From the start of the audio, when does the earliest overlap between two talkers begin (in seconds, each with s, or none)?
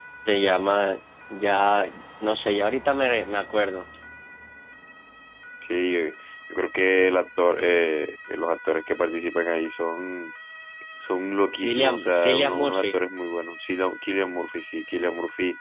11.6 s